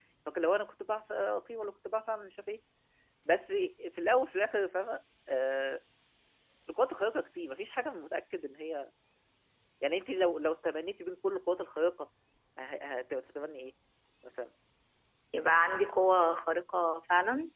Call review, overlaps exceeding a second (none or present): none